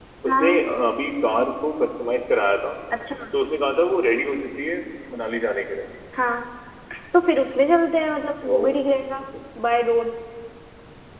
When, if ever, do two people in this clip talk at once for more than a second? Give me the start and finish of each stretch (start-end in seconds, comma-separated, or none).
none